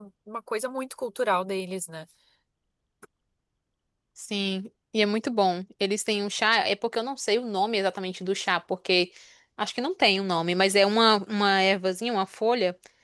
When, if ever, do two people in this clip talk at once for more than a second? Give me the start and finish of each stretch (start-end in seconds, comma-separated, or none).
none